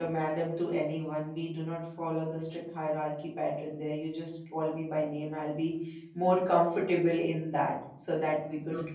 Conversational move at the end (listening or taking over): listening